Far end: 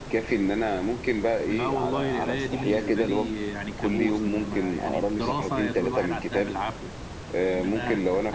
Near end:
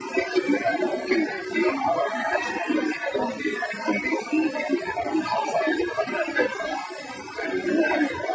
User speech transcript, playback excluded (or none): none